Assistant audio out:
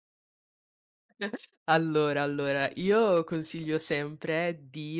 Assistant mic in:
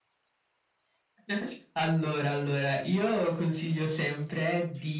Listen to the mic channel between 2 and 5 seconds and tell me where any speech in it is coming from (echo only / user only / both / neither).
echo only